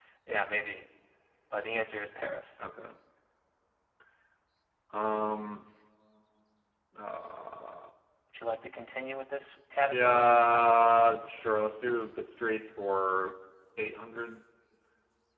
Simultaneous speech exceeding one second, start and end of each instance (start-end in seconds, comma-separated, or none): 9.9-11.1